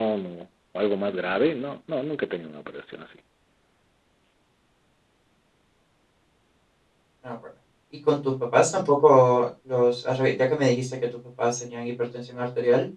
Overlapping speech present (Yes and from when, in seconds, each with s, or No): No